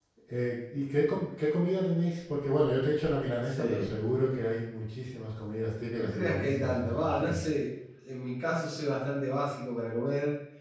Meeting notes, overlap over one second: present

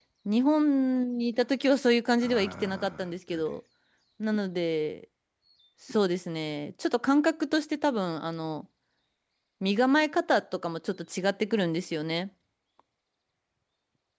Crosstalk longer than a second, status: present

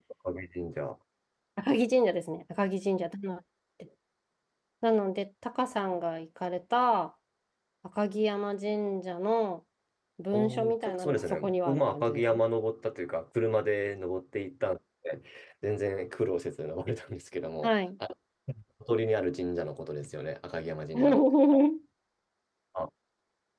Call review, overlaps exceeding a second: present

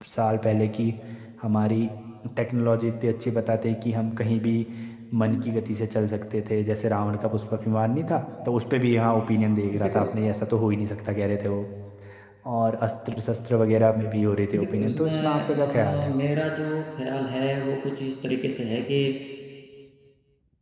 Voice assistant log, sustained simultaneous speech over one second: present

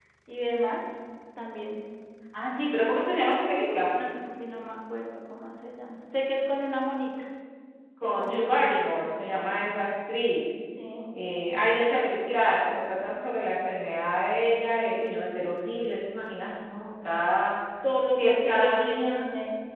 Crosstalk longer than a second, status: present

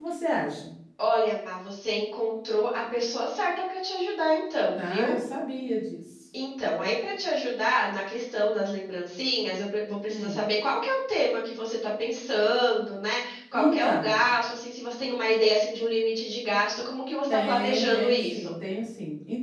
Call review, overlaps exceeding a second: present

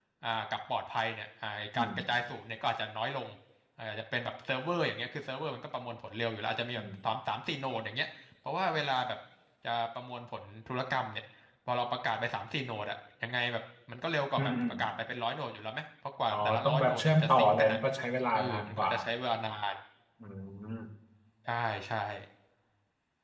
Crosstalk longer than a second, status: present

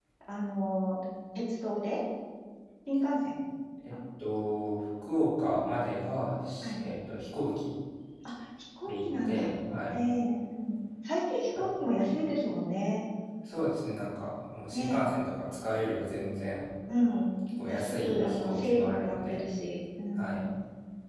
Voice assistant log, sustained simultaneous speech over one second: present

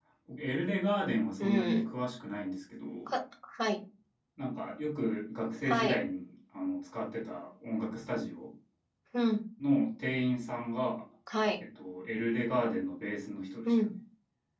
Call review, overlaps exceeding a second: none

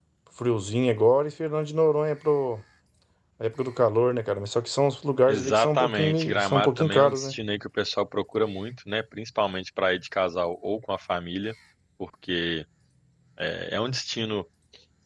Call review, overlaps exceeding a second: present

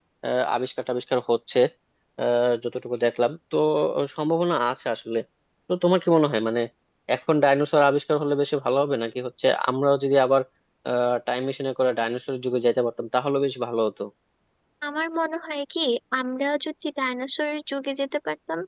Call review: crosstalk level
none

